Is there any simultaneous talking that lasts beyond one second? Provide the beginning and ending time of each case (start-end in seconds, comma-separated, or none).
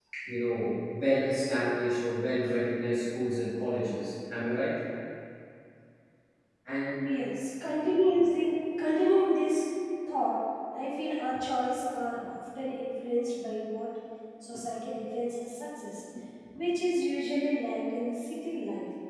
none